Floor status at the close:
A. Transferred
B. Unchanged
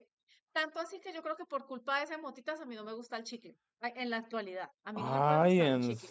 A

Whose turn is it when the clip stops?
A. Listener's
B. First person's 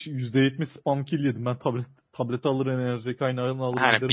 A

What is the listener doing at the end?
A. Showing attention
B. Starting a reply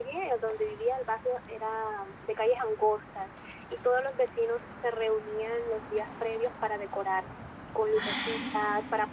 A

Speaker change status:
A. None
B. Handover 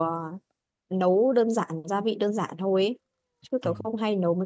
A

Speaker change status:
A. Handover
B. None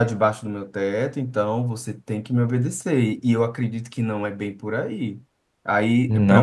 B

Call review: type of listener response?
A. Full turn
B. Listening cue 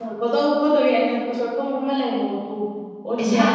B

